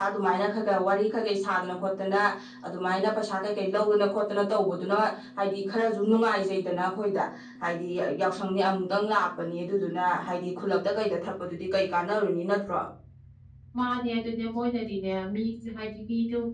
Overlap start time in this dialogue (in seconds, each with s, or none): none